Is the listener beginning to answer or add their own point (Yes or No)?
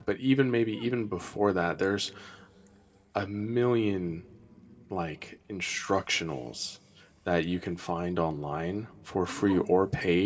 No